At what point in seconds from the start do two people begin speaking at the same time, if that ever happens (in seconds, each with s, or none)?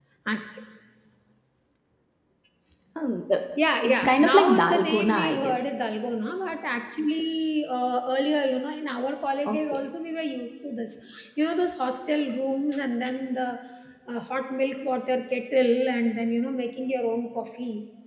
3.8 s